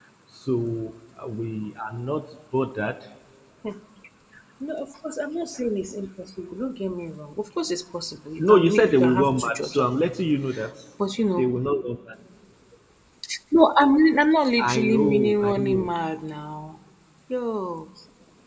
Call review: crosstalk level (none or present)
present